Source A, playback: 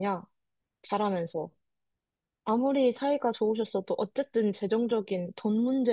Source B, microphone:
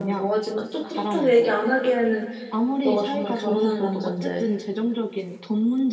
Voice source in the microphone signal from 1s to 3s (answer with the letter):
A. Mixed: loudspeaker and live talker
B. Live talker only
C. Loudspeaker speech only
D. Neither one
A